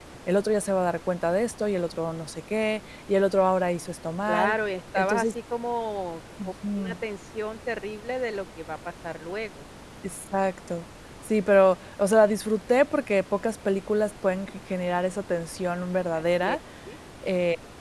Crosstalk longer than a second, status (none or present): none